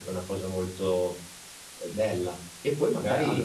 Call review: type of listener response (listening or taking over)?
listening